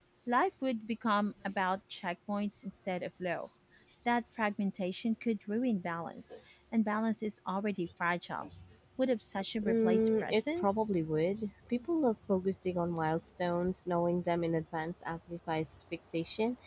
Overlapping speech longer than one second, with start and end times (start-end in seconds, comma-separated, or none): 9.6-10.9